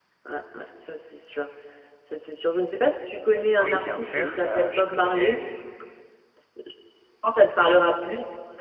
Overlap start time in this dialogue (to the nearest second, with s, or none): 4 s